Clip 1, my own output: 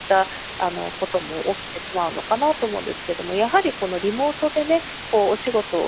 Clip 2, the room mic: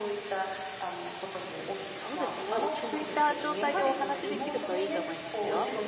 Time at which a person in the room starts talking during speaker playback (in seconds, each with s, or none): 1.9 s